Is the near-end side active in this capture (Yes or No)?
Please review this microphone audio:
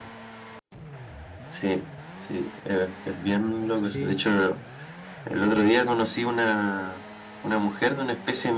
Yes